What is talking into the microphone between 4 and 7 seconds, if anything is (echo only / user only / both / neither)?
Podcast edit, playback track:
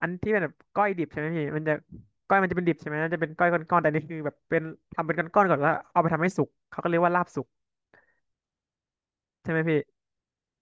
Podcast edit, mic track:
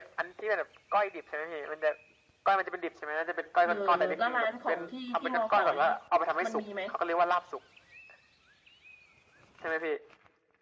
both